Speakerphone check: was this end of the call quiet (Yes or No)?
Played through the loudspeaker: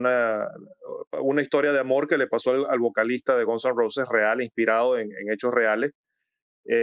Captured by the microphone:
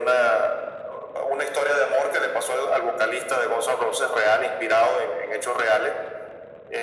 Yes